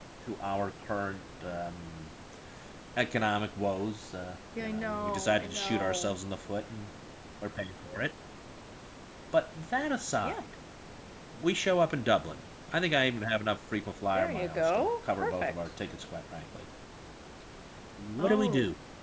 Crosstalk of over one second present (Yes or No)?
Yes